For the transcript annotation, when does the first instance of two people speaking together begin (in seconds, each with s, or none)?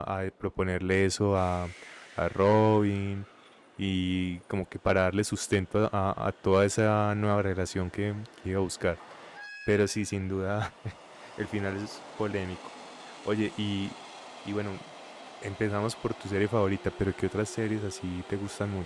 none